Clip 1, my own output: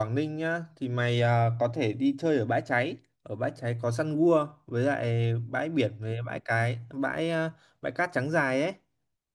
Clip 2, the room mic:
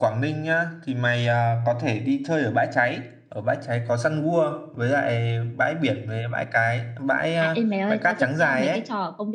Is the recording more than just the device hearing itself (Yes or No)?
Yes